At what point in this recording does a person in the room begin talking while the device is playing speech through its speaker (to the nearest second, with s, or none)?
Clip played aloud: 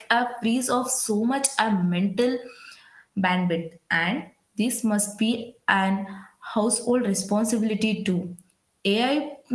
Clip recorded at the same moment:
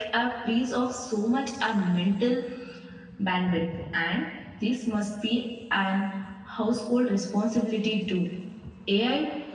none